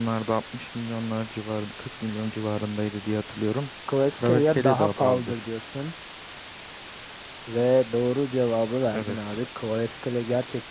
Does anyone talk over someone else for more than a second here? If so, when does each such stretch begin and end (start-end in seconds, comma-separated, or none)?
4.1-5.4